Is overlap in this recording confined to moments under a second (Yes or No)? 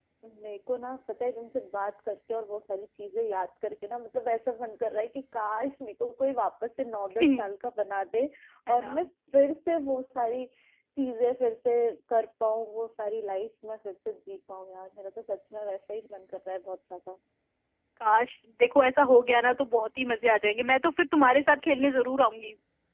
Yes